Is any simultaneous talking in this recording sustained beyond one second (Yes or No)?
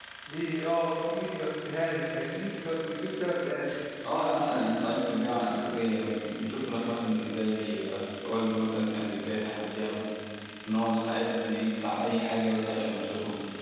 No